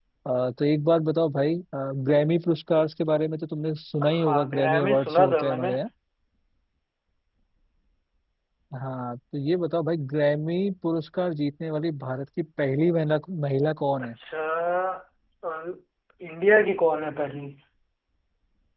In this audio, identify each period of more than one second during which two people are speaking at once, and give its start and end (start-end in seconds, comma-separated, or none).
4.1-5.7